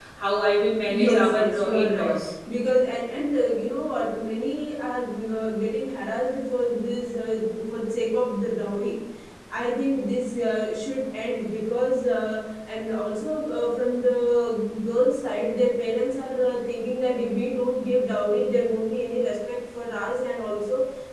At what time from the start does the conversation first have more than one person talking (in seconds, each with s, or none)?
0.9 s